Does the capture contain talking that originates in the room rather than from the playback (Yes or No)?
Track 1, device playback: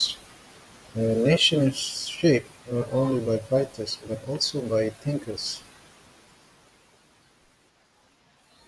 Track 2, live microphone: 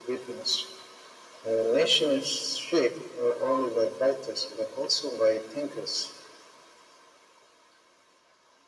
No